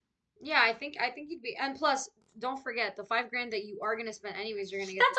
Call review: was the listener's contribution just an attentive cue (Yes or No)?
No